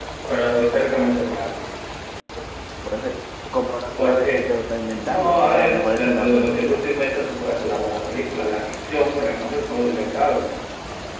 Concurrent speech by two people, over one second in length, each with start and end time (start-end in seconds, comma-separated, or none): 5.0-6.8